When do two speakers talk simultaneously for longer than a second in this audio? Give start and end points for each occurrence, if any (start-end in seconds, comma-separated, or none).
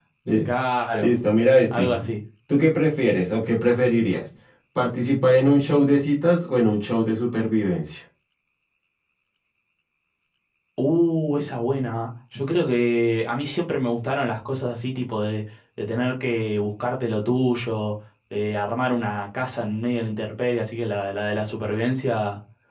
none